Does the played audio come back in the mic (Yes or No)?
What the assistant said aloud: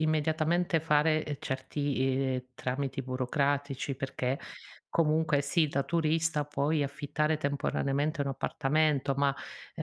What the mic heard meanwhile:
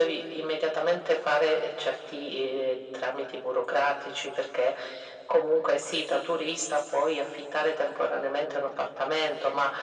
Yes